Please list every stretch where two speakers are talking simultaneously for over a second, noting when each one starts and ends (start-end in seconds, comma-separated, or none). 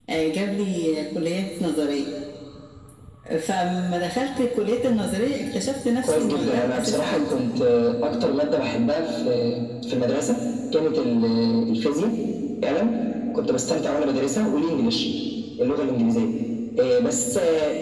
6.0-7.3